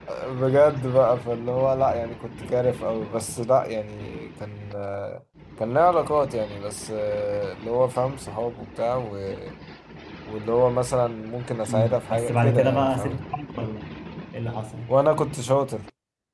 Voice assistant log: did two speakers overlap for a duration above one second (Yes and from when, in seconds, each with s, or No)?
Yes, from 11.7 s